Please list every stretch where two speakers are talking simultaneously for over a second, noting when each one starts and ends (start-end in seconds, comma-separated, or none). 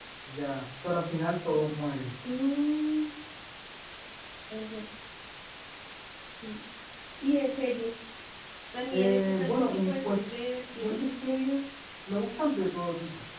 8.9-10.2